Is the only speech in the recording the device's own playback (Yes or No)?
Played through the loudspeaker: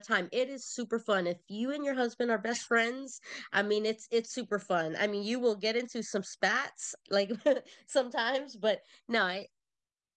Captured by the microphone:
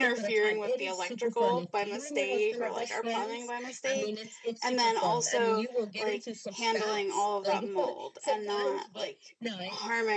No